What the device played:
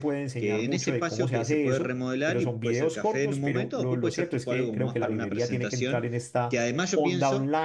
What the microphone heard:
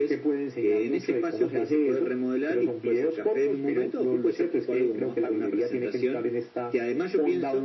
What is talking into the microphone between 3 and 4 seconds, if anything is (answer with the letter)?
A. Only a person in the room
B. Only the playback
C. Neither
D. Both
B